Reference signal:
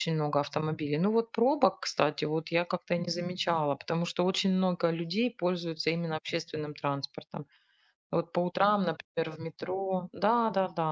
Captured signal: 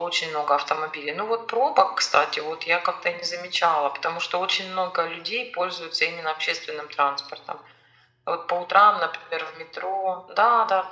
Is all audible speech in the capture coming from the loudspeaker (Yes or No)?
Yes